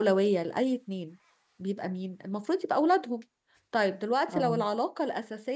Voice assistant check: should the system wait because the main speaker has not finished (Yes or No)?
Yes